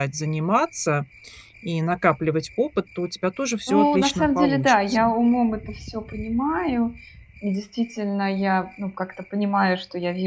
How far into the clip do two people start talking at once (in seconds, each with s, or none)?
3.7 s